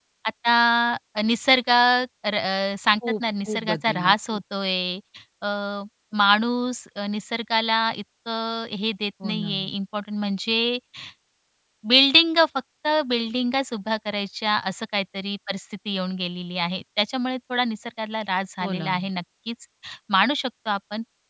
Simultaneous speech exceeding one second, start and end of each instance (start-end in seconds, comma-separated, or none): 3.2-4.4